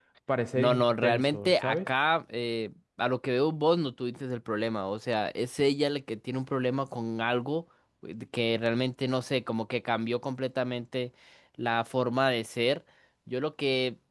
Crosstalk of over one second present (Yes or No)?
Yes